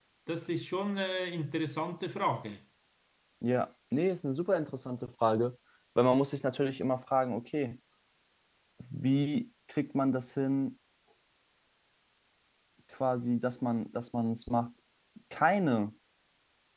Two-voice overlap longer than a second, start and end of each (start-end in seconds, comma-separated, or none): none